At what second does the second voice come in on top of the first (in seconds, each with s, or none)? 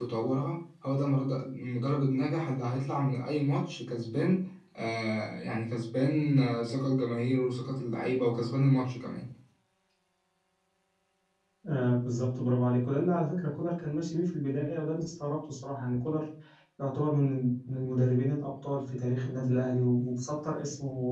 none